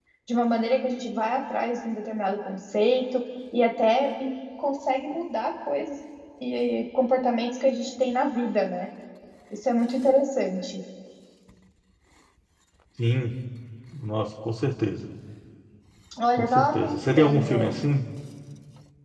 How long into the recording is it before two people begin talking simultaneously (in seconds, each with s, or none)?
16.4 s